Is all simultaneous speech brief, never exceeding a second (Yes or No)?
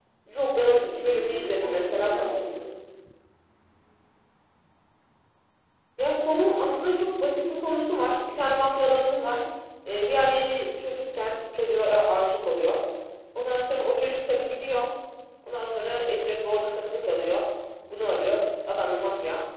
No